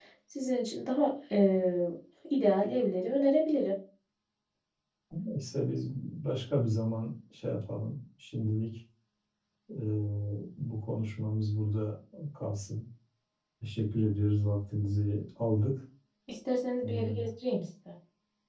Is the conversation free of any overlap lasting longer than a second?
Yes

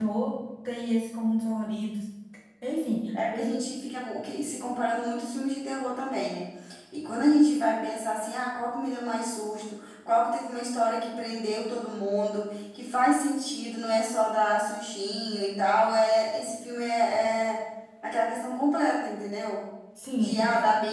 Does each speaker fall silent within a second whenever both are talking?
Yes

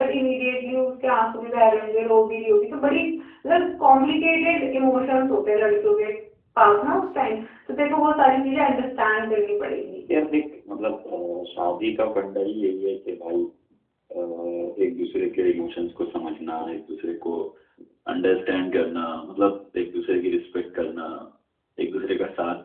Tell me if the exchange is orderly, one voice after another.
Yes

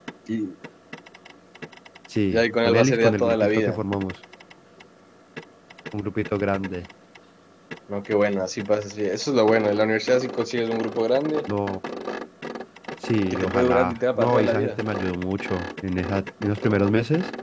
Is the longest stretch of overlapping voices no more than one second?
No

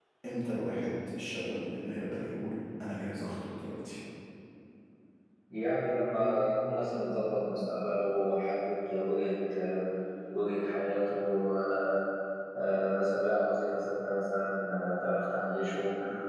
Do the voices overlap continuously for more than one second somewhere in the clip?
No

